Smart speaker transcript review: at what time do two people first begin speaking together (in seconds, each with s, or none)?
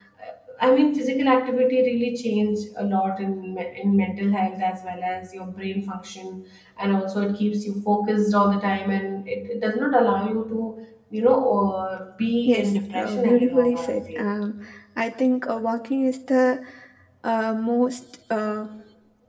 12.4 s